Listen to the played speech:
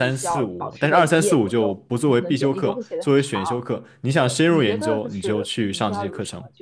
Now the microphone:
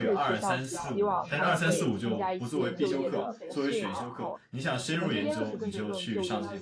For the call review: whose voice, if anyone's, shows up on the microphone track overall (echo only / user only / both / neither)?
both